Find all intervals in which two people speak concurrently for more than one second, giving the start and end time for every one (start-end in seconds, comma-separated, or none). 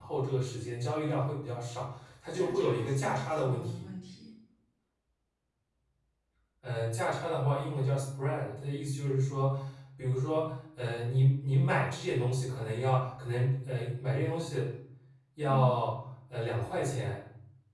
2.3-3.9